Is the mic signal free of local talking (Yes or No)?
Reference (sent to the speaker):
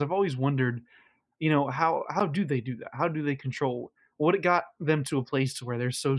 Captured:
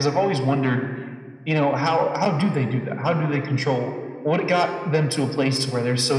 Yes